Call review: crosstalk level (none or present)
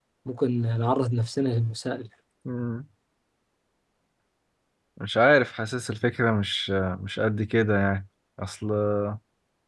none